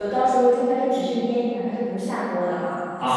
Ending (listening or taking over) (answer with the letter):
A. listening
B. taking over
B